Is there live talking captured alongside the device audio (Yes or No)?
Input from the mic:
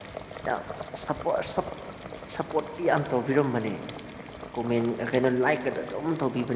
Yes